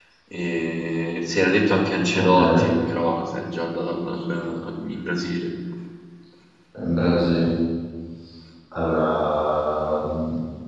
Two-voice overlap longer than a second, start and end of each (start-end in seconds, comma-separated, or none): none